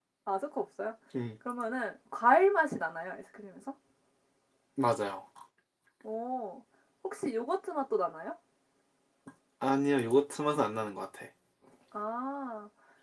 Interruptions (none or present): none